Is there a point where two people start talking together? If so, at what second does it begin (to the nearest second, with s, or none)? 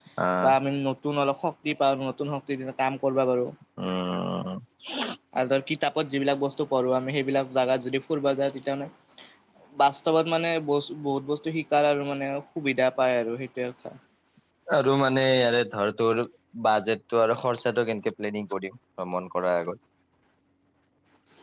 none